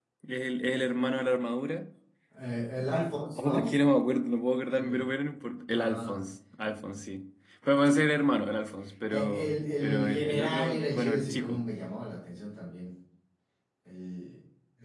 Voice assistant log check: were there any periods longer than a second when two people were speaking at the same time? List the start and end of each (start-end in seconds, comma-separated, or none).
9.1-11.6